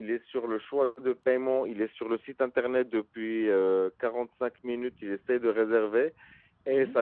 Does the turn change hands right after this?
No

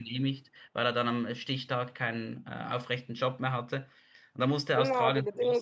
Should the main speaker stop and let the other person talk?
Yes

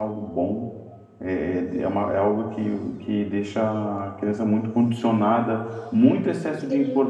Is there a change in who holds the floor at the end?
No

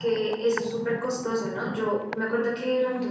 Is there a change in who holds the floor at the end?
No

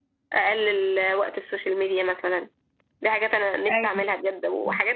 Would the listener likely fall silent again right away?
Yes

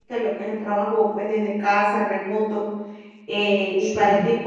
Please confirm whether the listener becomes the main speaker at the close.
No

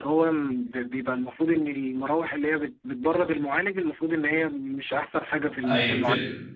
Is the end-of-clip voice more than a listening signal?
Yes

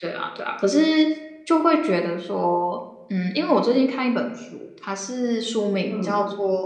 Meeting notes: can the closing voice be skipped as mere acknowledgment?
Yes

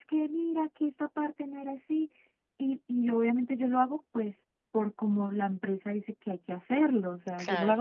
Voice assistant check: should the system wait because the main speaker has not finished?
Yes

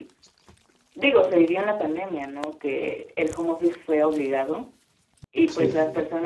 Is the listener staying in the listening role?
Yes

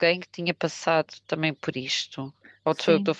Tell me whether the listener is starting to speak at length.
Yes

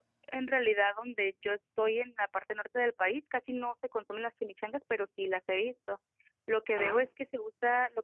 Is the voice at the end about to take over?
No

